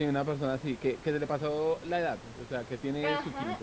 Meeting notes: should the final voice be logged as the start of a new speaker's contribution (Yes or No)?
Yes